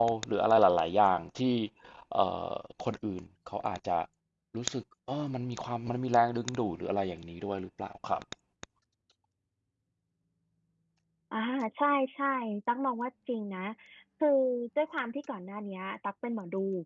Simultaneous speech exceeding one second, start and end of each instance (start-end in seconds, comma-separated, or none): none